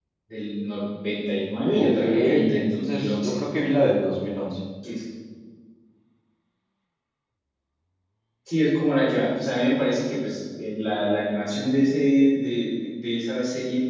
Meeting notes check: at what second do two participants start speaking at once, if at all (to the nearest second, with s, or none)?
2 s